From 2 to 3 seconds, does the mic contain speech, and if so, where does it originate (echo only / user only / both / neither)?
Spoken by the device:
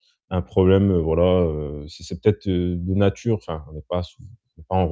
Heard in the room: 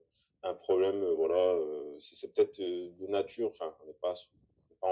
echo only